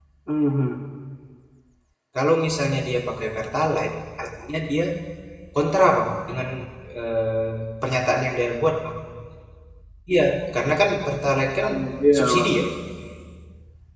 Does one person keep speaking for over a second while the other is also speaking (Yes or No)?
No